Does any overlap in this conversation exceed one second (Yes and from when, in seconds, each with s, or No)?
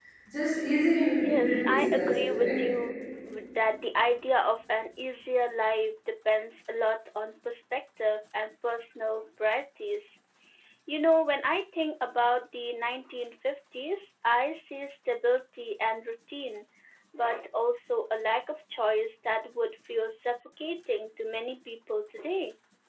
Yes, from 1.2 s